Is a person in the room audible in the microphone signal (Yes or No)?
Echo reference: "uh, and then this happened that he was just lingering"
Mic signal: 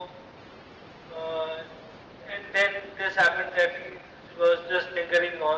No